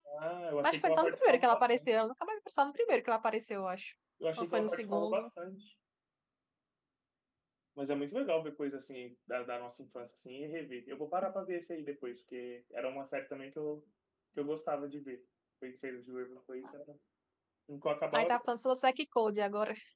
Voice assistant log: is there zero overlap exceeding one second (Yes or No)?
No